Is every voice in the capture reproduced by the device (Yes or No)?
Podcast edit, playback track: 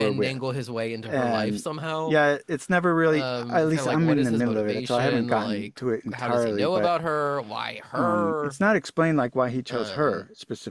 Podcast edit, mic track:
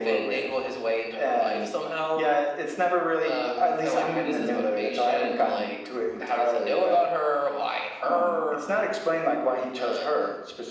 Yes